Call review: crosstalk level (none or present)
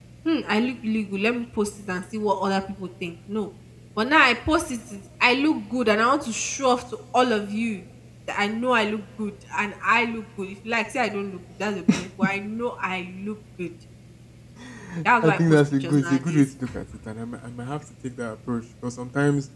present